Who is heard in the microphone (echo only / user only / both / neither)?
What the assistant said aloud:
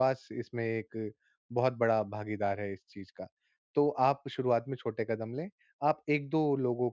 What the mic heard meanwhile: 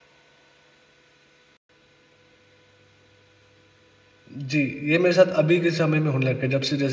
user only